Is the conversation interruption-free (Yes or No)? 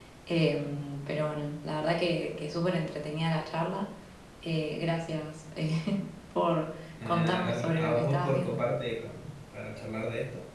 No